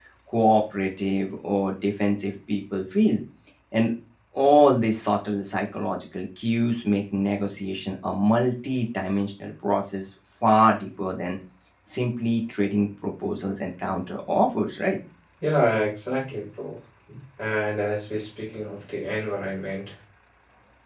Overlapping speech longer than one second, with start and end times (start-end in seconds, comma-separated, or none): none